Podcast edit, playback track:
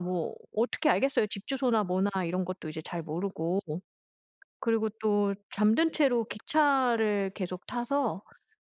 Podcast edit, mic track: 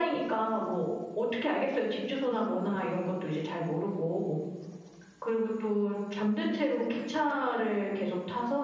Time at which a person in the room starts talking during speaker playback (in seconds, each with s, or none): none